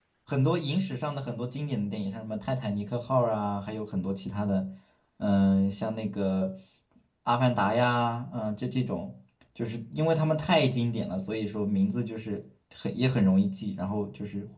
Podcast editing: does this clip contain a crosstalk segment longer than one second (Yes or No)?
No